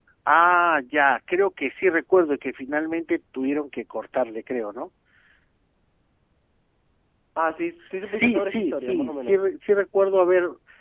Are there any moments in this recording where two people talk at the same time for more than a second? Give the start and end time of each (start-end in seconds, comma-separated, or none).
8.0-9.4